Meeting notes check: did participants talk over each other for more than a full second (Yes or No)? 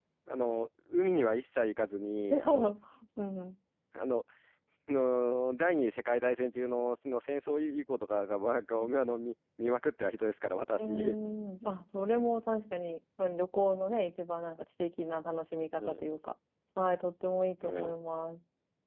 No